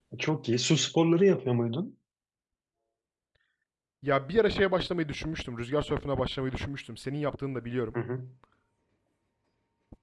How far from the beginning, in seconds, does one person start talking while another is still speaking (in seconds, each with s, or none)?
none